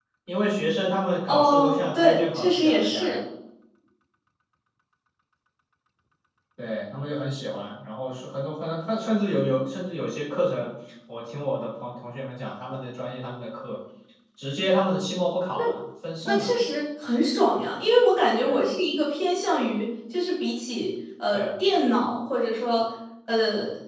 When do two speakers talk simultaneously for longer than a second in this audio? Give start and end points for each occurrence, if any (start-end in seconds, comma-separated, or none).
1.3-3.2